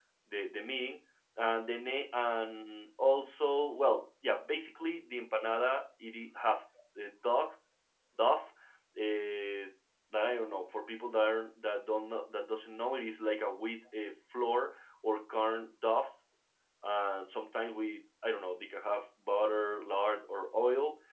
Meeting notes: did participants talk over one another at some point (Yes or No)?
No